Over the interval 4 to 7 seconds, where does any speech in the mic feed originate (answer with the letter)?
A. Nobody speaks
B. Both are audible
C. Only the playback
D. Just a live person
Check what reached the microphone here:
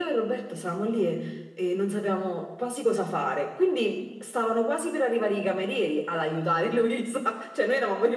C